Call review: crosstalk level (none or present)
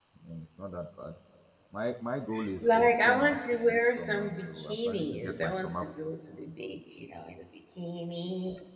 present